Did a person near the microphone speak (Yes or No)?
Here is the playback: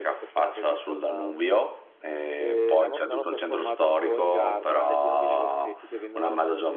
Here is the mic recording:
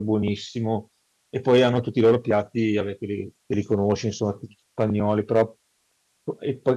Yes